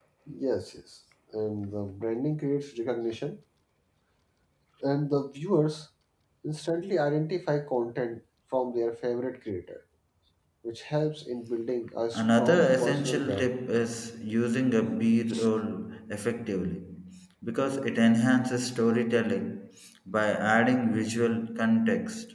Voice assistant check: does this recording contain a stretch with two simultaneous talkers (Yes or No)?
Yes